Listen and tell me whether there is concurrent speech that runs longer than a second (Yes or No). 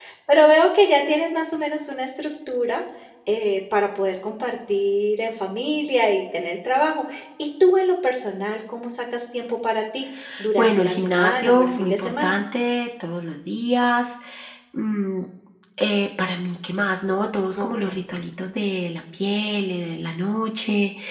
Yes